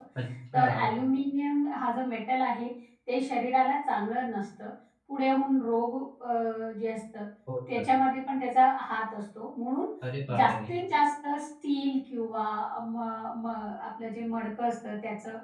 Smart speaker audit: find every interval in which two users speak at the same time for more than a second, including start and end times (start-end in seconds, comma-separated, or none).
none